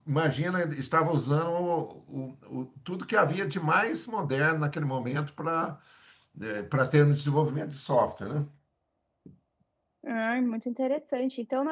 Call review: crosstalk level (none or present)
none